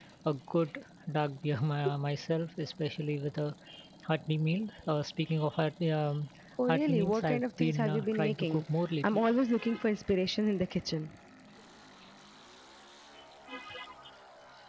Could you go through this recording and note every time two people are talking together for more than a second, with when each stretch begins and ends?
6.7-8.6

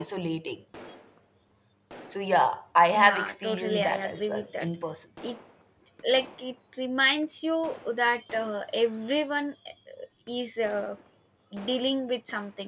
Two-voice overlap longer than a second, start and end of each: 2.9-4.7

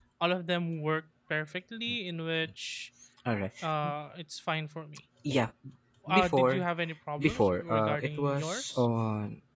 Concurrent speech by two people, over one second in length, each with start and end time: 7.2-8.9

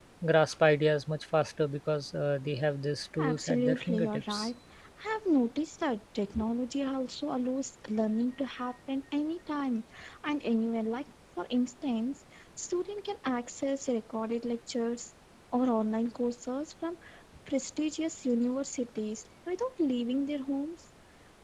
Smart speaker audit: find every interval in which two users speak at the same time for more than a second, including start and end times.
3.2-4.5

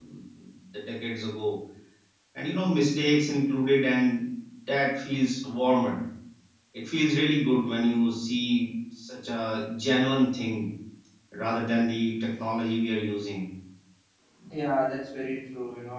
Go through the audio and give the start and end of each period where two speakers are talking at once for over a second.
none

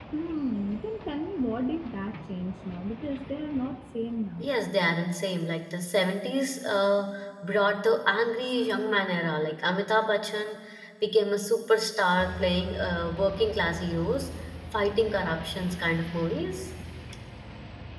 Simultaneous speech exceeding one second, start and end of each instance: none

